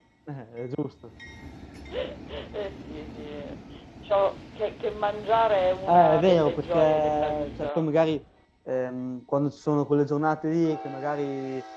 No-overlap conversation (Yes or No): No